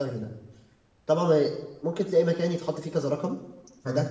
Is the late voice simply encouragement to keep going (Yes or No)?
Yes